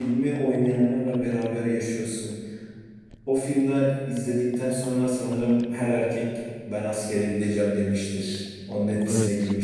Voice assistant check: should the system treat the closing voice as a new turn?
Yes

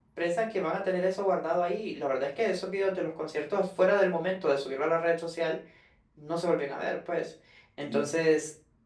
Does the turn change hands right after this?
No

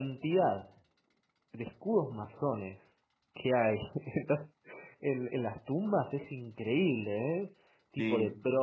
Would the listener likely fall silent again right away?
Yes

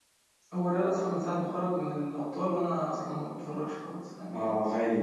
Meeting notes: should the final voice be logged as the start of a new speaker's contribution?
Yes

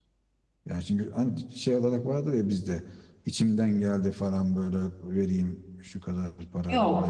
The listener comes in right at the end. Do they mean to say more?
Yes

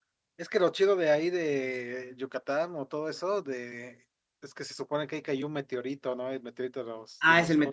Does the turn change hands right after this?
Yes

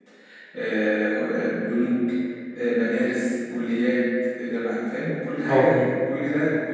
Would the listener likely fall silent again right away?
Yes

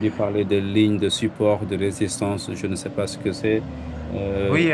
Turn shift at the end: Yes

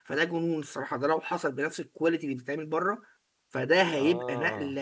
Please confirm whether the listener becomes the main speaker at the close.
No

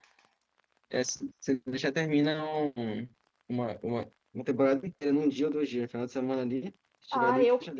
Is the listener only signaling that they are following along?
No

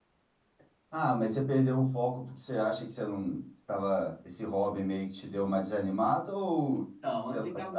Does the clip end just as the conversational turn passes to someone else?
Yes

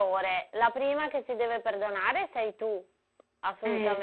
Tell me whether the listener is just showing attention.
Yes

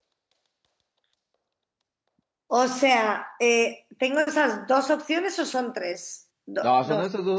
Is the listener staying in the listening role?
No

